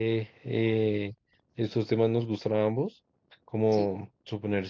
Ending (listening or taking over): listening